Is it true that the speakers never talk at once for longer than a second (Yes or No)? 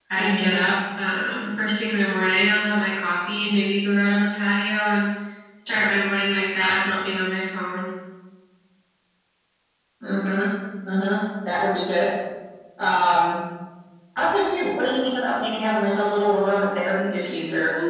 Yes